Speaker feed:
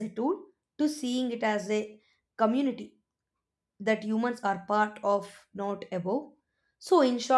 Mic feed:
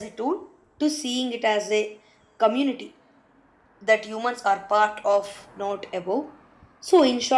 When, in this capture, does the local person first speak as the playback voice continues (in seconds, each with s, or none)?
none